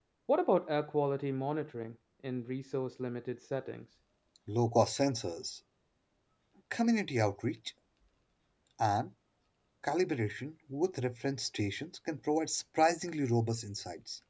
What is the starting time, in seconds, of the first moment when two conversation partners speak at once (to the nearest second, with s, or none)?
none